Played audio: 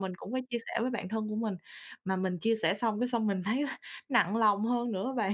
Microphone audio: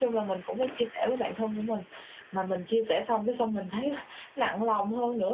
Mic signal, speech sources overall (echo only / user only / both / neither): echo only